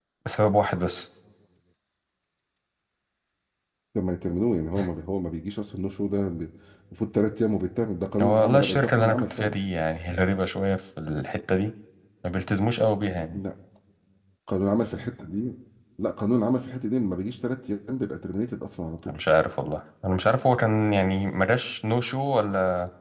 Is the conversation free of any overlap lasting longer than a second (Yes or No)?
No